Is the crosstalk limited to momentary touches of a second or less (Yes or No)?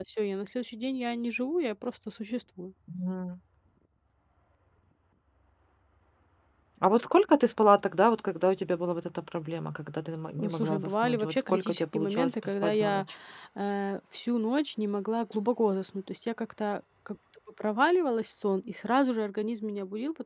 No